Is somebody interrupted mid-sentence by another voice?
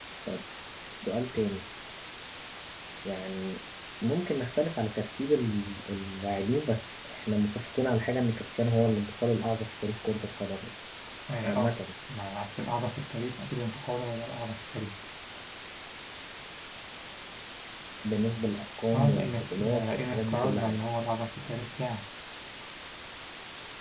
Yes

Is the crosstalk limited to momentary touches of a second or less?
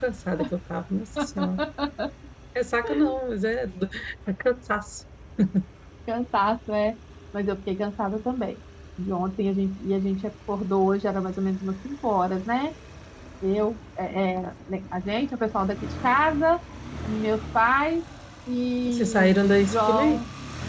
No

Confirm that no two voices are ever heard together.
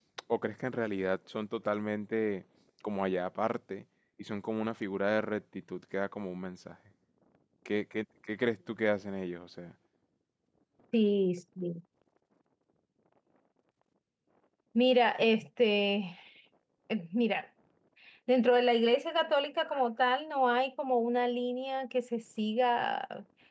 Yes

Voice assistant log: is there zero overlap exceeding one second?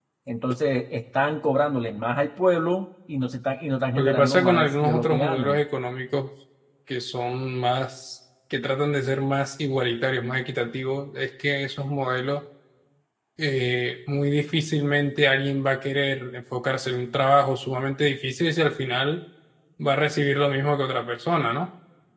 No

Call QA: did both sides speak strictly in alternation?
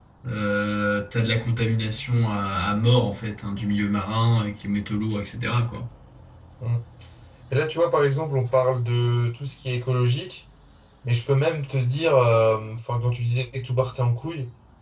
Yes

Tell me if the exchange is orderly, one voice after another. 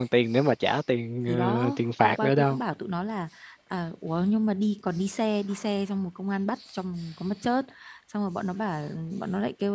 No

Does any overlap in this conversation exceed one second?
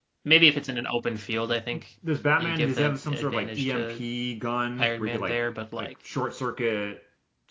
Yes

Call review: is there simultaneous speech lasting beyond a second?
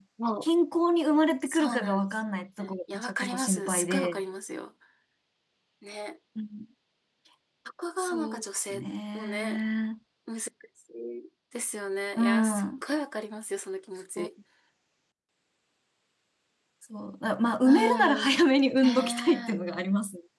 Yes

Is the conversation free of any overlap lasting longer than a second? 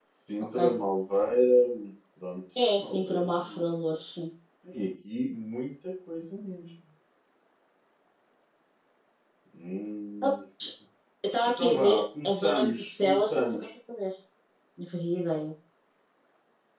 No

